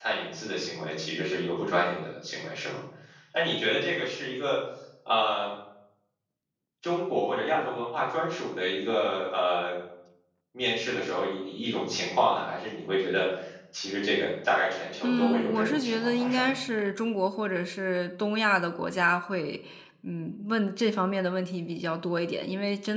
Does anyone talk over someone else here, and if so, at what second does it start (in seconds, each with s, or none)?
15.0 s